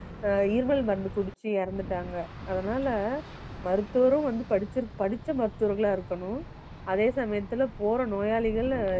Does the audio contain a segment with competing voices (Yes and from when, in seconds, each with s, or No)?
No